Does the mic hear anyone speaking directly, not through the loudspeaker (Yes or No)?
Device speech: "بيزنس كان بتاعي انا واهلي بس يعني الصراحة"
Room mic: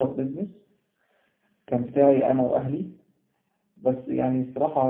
No